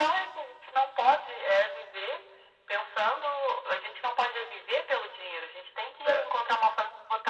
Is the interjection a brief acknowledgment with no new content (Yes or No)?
Yes